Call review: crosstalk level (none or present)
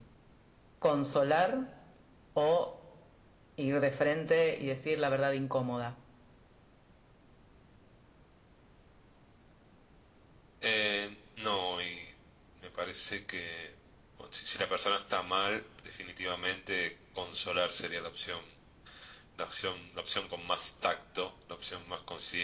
none